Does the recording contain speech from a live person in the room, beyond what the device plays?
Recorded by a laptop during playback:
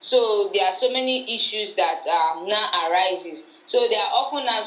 No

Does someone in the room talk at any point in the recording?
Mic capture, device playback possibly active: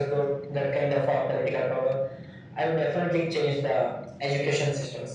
No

